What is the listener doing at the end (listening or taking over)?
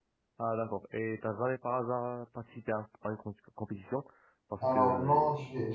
taking over